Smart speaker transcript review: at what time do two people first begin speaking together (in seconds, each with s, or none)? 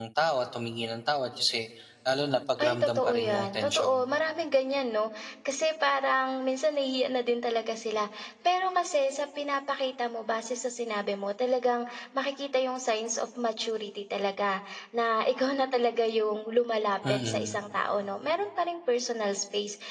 2.6 s